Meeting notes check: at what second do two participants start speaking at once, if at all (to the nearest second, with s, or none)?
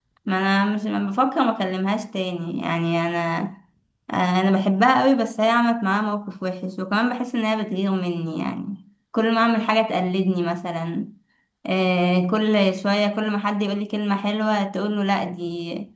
none